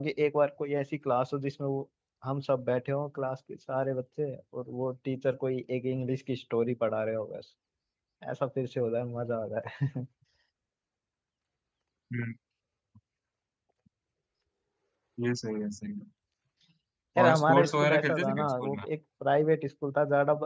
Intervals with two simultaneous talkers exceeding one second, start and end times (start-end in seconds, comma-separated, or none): 17.2-18.8